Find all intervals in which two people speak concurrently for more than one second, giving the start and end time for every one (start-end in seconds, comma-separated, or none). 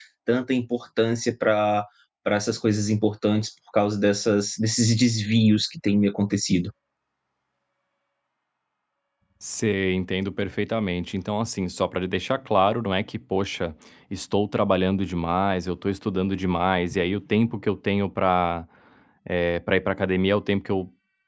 none